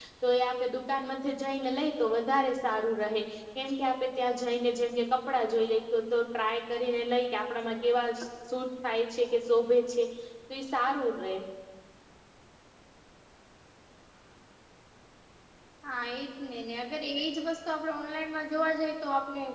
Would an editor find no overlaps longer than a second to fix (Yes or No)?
Yes